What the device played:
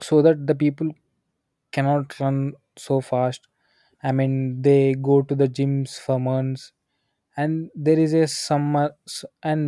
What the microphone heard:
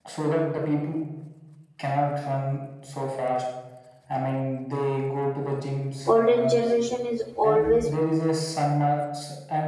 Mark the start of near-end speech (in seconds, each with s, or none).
6.1 s